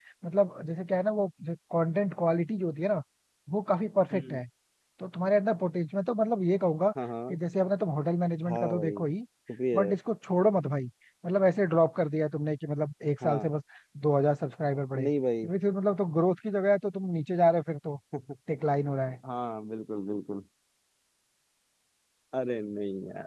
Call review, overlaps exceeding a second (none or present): none